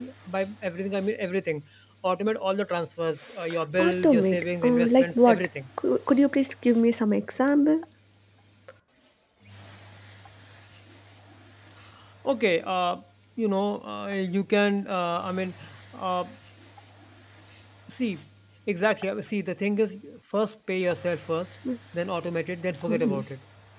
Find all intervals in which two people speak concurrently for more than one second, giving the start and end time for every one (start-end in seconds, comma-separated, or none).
3.8-5.5